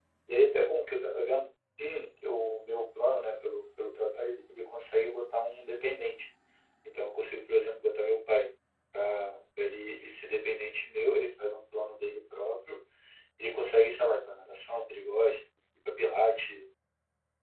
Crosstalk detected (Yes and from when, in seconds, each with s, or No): No